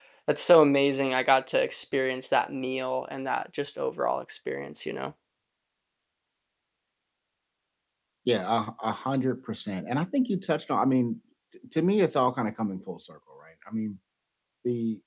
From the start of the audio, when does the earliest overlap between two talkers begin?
none

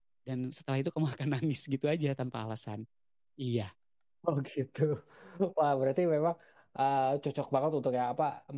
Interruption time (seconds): none

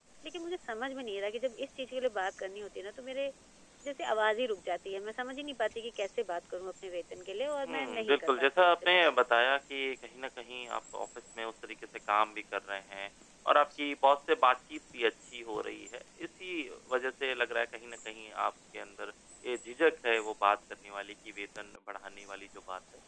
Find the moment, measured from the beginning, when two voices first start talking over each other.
7.6 s

